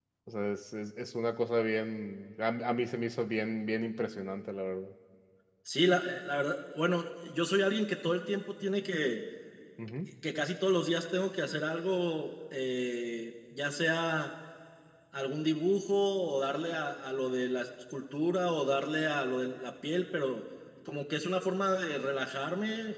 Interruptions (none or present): none